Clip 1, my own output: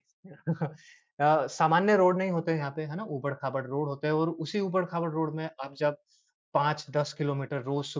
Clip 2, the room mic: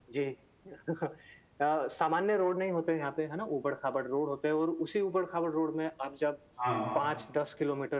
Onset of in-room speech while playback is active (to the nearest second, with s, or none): 7 s